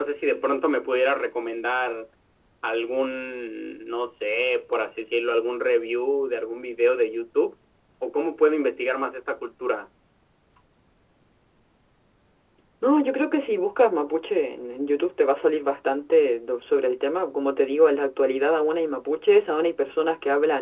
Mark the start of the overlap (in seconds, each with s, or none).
none